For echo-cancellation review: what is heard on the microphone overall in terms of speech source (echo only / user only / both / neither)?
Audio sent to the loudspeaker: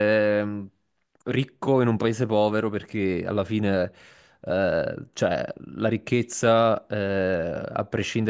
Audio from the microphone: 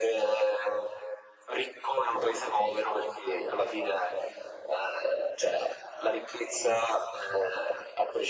echo only